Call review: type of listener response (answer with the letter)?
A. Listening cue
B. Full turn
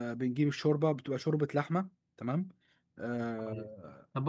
B